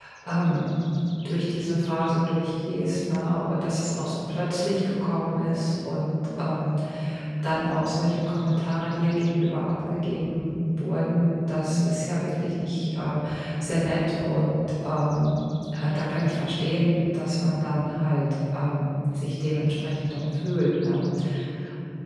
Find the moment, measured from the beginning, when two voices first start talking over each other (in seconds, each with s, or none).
none